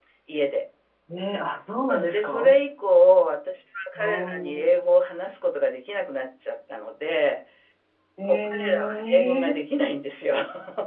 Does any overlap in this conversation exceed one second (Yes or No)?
Yes